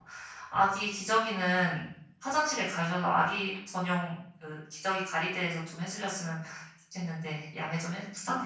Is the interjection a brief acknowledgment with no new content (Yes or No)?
No